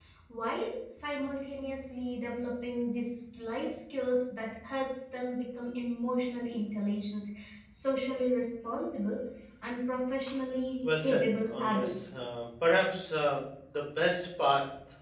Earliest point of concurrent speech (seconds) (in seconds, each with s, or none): 10.8 s